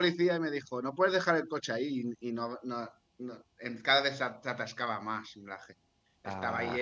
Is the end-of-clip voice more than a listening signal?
No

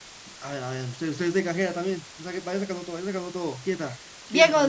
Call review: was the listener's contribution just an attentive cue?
No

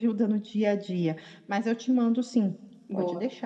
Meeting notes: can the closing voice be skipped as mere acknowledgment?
No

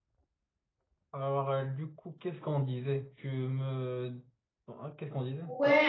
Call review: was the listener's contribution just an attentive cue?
No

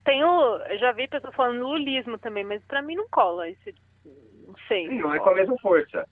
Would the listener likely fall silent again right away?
No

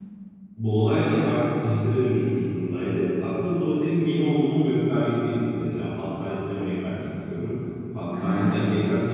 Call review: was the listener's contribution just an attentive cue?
Yes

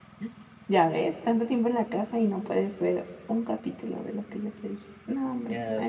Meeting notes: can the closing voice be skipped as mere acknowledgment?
No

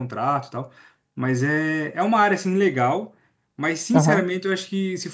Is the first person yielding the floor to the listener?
No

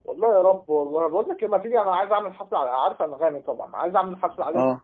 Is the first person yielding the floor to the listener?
No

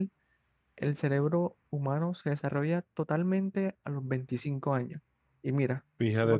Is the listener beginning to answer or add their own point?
No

